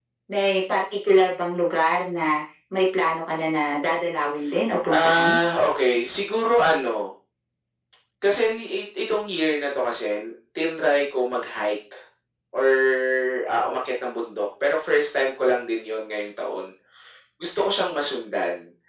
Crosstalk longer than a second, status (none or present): none